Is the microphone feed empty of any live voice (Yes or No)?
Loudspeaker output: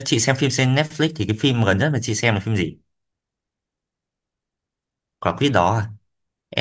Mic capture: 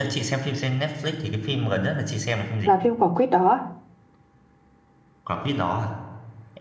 No